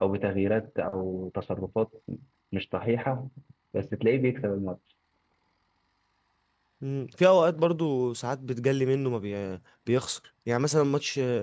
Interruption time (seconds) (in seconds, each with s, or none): none